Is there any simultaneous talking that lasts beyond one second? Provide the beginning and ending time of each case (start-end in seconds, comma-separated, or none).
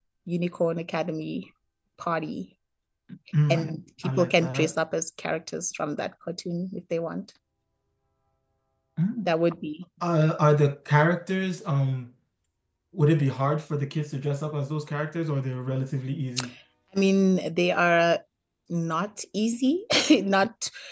3.5-4.7